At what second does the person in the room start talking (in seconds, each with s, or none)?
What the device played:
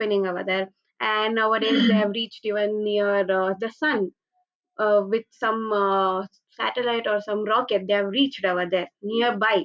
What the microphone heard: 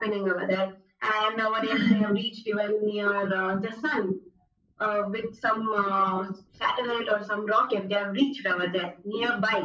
none